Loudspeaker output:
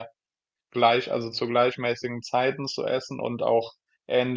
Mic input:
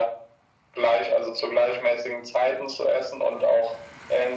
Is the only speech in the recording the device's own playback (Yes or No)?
Yes